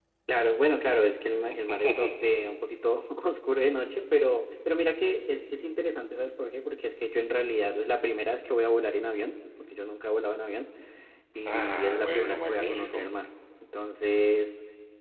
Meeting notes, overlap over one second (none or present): present